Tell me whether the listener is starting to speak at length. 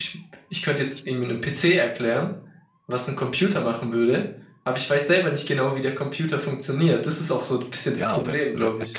Yes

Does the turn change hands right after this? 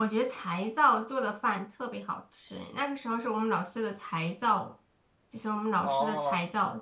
No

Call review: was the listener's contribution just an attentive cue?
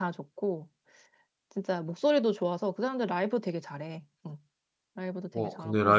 No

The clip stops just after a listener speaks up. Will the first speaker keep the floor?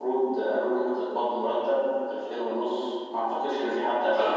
No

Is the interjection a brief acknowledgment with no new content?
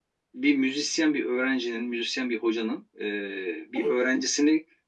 Yes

